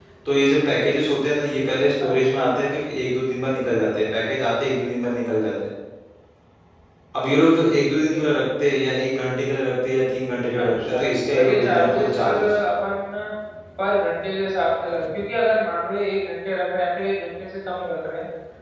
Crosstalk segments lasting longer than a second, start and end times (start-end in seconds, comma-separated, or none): 10.6-12.5